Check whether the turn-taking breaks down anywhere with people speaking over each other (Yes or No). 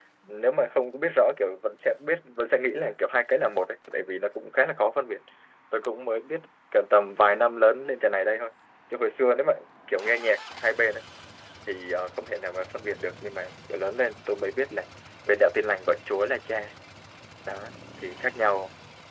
No